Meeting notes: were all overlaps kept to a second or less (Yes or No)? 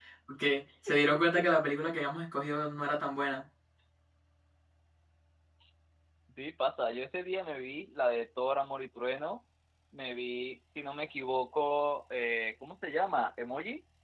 Yes